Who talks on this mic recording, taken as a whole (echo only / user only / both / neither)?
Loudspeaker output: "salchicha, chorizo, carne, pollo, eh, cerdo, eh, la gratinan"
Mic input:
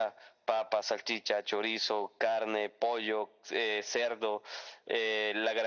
echo only